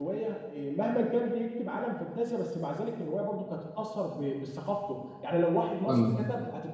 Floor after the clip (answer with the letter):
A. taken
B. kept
B